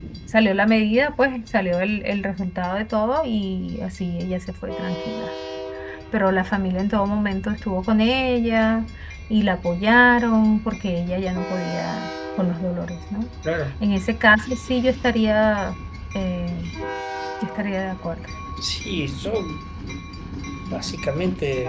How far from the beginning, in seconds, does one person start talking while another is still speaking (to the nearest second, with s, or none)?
none